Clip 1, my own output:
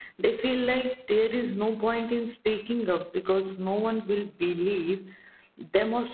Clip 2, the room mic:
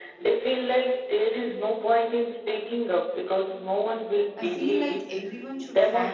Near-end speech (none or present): present